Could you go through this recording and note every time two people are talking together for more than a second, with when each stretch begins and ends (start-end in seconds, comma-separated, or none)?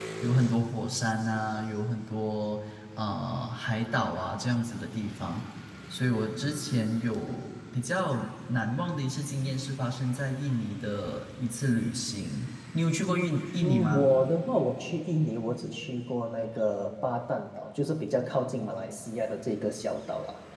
none